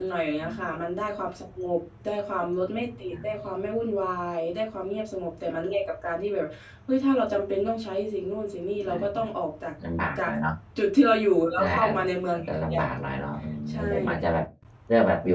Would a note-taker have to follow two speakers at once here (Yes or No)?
Yes